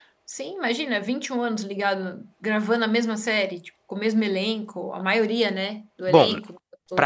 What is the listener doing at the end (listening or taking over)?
taking over